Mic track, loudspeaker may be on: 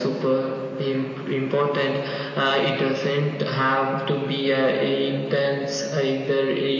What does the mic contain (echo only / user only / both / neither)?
echo only